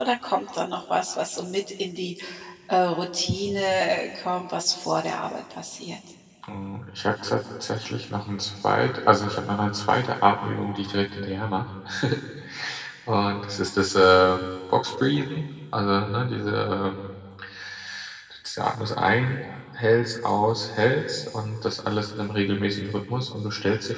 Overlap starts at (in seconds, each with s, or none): none